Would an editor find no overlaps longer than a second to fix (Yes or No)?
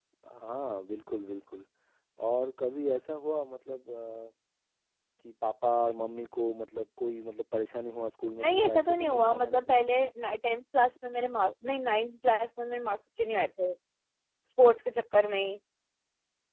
No